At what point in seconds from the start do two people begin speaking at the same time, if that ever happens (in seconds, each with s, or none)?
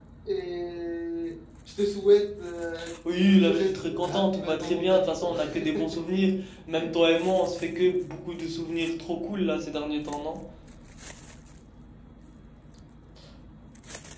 3.0 s